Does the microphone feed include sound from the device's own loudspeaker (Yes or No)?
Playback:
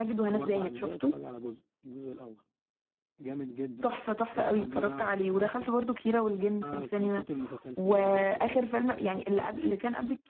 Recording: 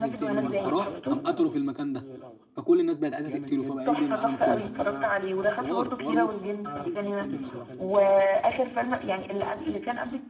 Yes